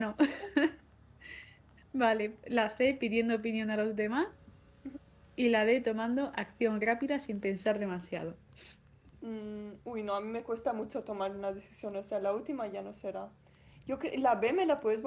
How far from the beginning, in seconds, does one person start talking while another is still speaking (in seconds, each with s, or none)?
none